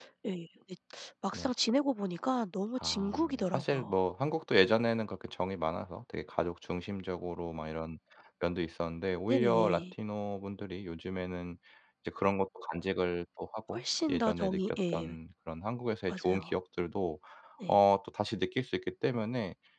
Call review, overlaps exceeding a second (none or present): present